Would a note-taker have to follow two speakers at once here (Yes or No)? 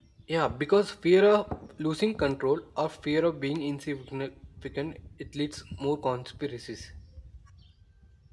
No